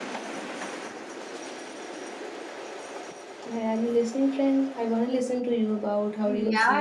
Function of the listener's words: taking over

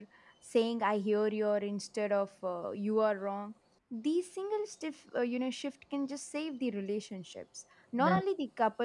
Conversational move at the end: listening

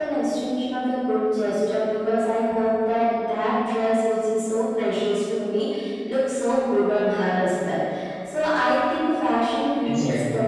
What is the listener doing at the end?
listening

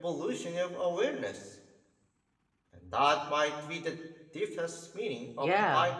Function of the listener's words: taking over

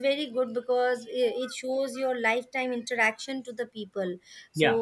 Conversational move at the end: listening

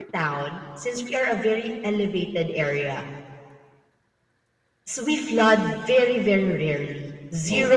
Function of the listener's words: listening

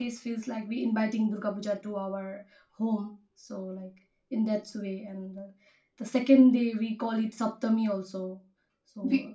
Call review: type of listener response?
taking over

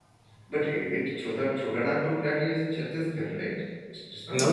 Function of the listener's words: taking over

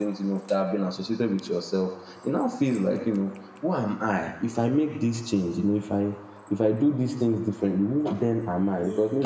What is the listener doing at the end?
listening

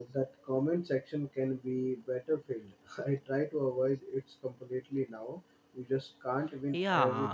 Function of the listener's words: taking over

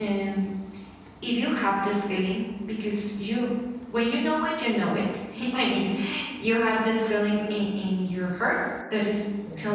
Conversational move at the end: listening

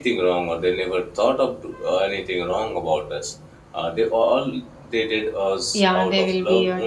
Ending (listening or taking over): taking over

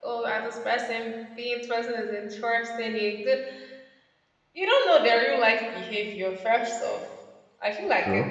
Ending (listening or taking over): listening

